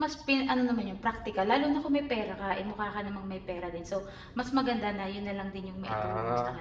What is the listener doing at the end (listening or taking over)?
taking over